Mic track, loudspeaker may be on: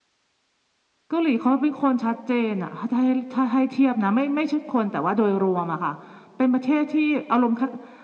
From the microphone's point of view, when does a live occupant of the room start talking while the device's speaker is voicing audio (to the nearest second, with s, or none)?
none